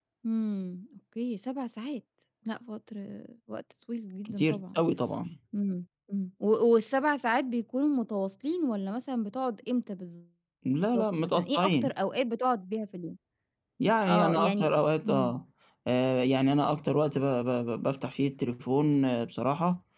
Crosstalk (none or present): present